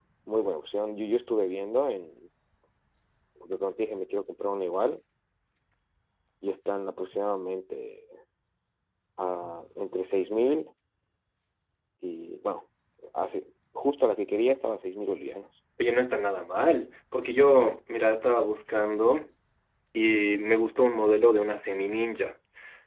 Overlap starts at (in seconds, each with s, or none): none